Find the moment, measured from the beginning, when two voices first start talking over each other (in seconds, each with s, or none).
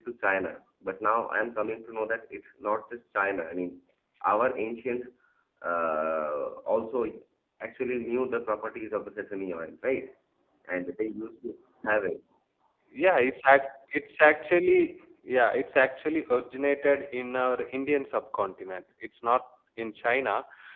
none